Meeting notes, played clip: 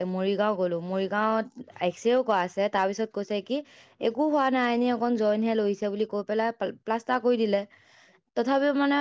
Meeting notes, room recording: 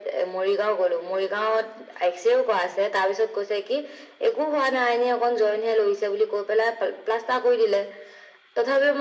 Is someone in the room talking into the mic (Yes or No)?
No